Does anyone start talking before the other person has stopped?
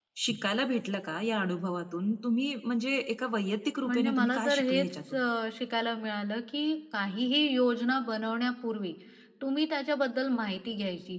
Yes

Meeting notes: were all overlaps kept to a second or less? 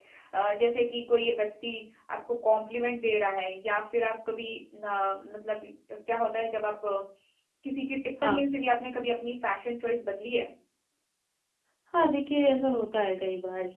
Yes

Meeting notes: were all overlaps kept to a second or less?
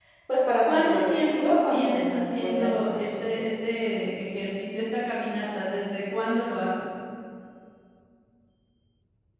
No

